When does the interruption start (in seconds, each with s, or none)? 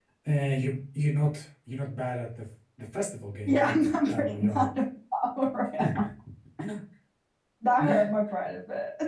3.5 s